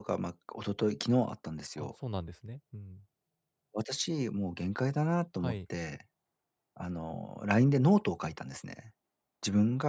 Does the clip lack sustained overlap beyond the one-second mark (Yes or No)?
Yes